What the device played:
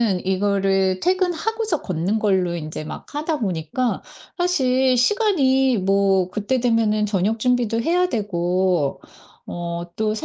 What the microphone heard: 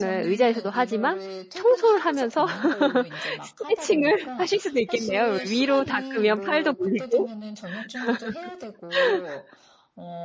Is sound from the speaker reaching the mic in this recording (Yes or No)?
Yes